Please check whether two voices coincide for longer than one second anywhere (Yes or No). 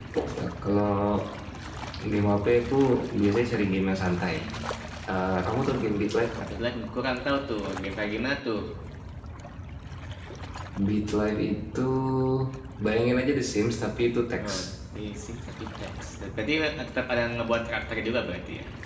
No